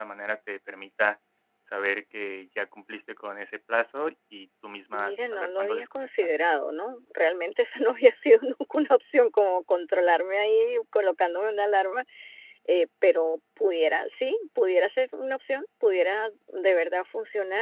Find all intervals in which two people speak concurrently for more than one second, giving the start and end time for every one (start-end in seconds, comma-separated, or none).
4.9-6.3